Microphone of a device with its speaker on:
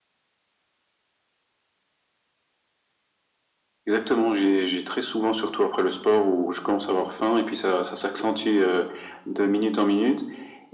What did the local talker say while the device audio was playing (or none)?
none